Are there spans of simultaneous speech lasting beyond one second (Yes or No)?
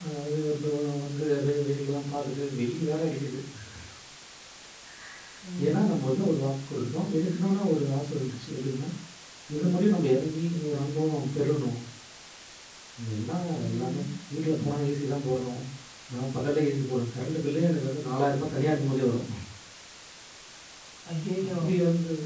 No